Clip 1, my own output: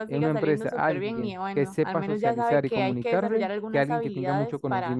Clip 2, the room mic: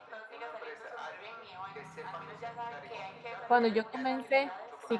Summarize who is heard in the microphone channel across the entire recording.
both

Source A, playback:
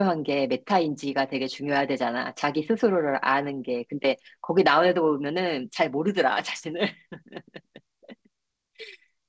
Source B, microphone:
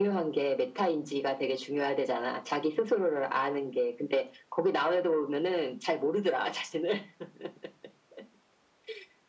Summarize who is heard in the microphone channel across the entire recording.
echo only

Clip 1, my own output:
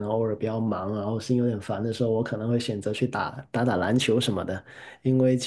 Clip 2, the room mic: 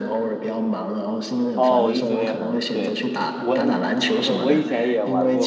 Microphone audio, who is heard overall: both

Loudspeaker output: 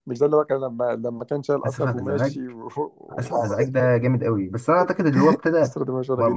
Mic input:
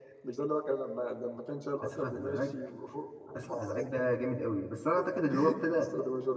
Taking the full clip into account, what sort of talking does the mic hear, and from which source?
echo only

